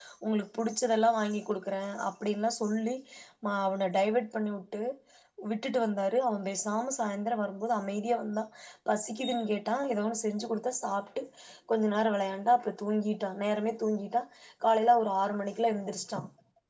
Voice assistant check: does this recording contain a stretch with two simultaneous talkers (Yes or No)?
No